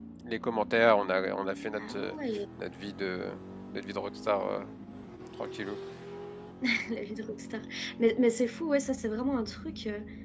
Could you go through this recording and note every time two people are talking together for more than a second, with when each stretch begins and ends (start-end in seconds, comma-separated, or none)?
none